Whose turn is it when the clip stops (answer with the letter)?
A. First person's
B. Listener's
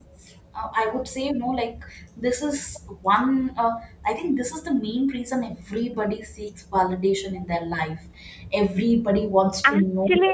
B